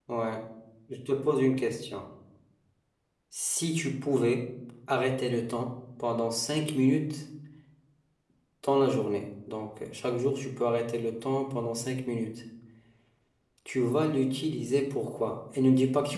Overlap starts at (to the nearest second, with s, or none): none